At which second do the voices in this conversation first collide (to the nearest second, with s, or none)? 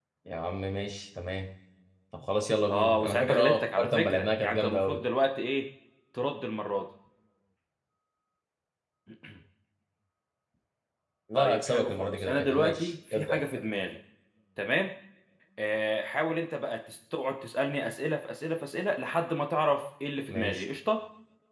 3 s